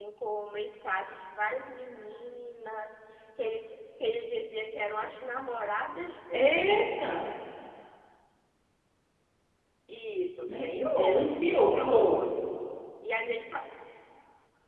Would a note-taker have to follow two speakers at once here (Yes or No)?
Yes